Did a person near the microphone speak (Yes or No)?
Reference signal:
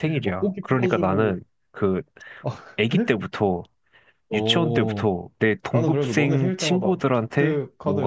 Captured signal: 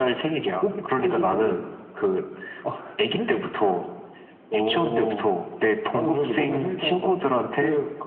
No